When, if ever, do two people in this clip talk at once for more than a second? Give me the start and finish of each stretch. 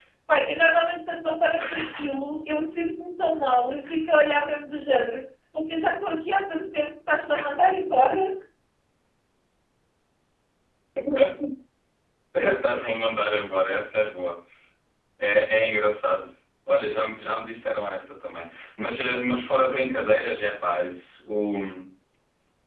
none

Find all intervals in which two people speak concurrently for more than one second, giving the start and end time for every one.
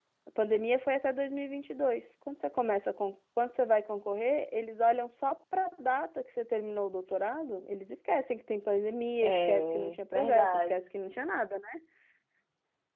9.2-10.7

